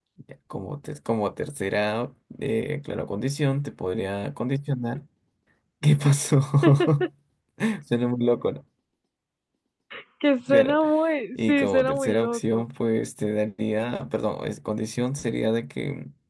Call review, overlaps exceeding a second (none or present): present